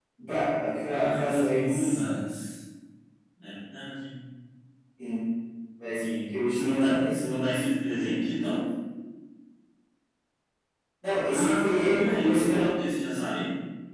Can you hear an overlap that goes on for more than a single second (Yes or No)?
Yes